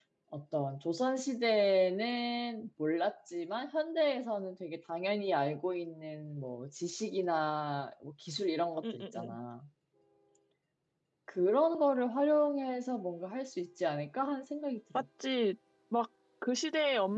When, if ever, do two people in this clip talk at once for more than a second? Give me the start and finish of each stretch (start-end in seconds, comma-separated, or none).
none